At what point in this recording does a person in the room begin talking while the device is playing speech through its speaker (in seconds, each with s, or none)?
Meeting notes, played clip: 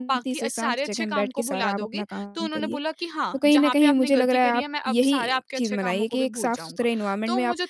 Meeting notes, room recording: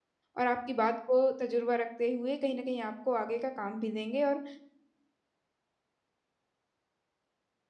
0.4 s